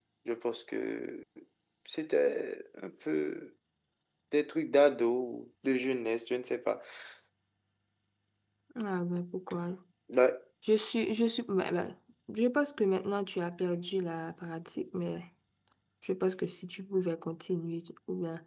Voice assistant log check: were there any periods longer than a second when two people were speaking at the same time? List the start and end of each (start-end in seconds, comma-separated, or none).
none